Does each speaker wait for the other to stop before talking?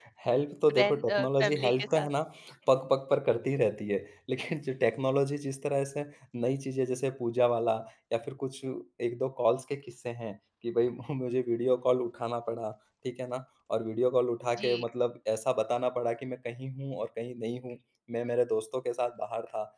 No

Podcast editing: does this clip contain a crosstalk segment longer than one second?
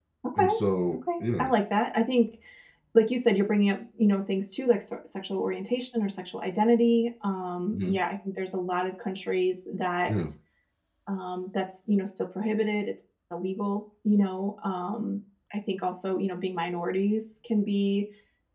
No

